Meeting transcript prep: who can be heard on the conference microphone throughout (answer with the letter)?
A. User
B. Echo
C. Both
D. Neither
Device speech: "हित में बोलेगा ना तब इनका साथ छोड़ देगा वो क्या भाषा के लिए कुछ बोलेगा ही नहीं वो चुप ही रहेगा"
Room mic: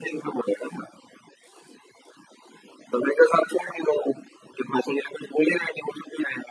B